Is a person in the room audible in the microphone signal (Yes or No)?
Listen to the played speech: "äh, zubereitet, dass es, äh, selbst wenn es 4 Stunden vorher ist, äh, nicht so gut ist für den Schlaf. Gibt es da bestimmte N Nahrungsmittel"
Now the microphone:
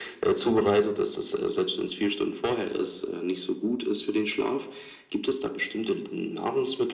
No